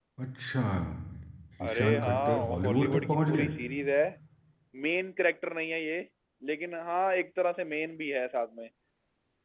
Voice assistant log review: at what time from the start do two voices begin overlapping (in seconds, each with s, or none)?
1.6 s